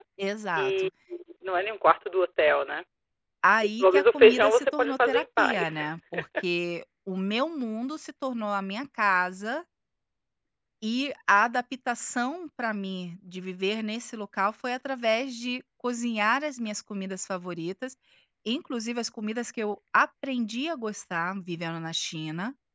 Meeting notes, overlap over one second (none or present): present